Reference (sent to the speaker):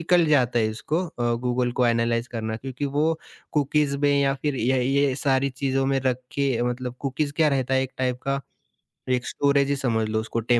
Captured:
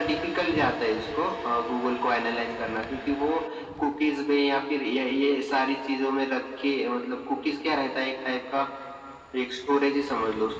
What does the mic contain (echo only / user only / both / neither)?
echo only